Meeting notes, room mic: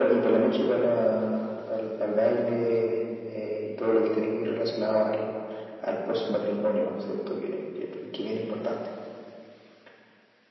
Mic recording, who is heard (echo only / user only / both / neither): echo only